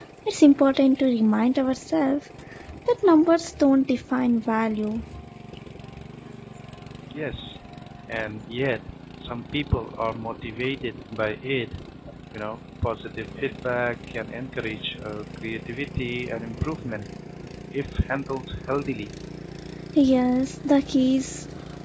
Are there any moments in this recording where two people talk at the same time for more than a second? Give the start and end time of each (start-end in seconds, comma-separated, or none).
none